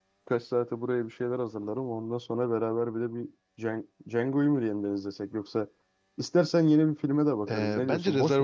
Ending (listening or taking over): taking over